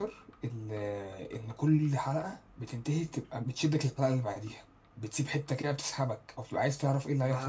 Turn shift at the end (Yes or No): Yes